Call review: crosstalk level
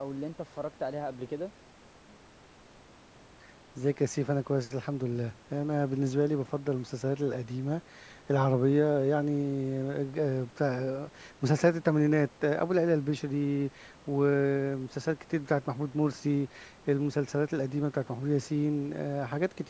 none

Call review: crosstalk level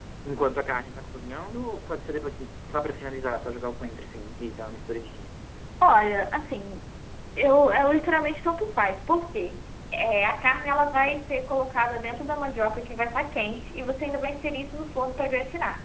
none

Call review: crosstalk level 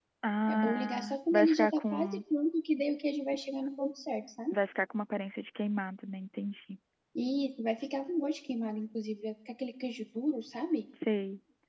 present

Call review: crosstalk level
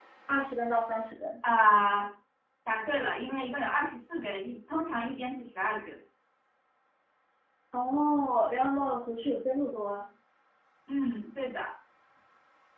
none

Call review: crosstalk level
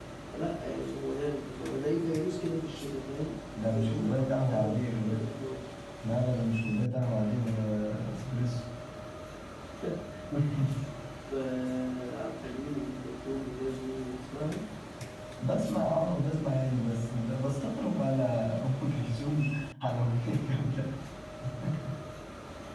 present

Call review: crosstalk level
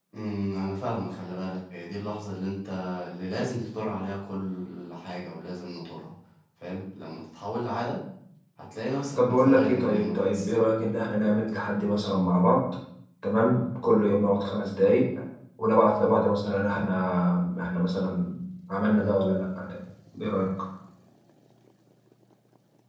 present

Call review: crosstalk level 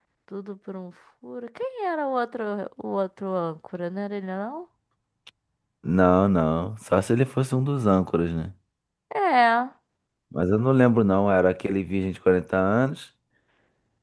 none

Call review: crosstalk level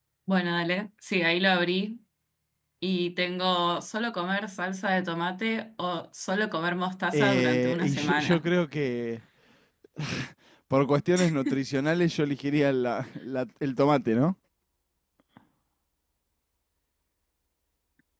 present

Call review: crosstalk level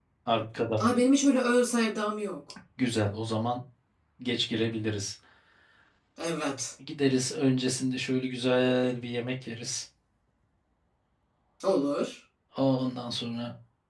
none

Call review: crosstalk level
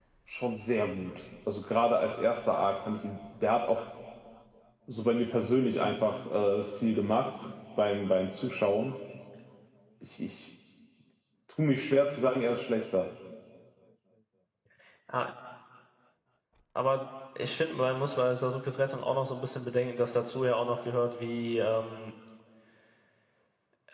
none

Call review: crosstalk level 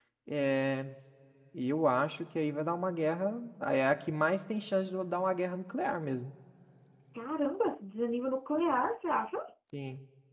none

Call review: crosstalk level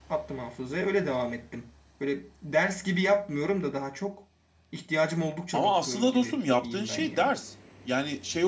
present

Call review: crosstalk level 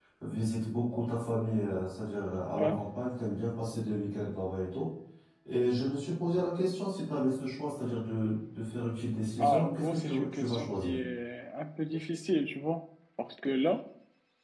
present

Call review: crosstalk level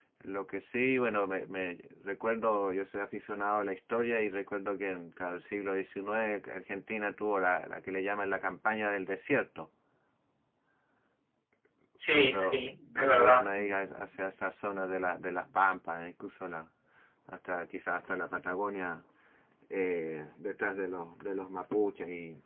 present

